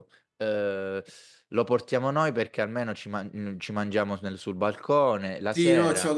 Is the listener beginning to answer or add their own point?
Yes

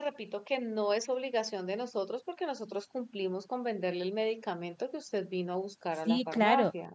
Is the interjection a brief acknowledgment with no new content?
No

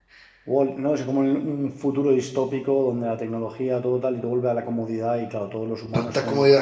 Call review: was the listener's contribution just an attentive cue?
No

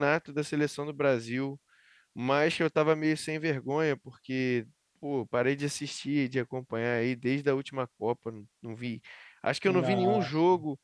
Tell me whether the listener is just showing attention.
Yes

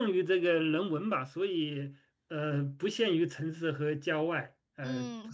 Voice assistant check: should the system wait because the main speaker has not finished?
No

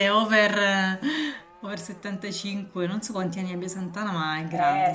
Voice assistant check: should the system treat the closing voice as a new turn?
Yes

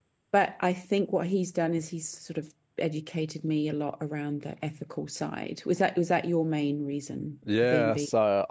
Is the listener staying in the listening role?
No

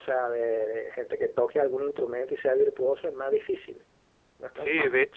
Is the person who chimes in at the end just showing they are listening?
No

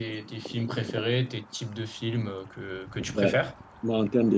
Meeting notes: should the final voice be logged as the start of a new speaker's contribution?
Yes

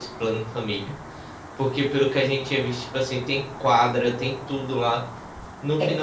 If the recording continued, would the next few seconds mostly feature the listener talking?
No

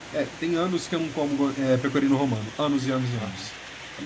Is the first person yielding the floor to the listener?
Yes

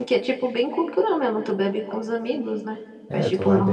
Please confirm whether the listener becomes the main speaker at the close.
Yes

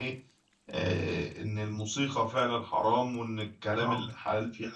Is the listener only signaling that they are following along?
Yes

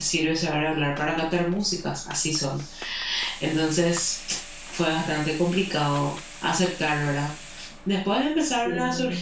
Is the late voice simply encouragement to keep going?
Yes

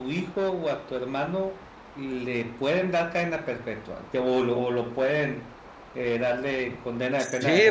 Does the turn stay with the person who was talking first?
No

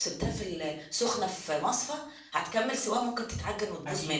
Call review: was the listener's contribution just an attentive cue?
No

